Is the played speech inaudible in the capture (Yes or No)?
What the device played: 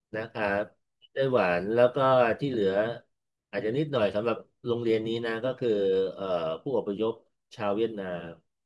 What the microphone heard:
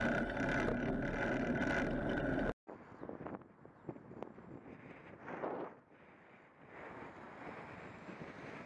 Yes